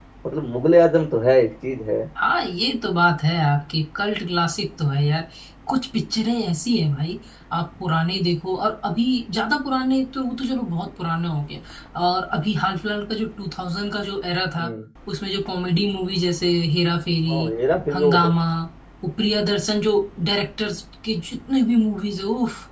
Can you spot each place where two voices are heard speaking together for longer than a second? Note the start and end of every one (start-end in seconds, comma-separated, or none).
none